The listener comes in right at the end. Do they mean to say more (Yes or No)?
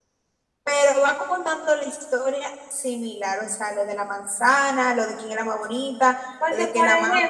Yes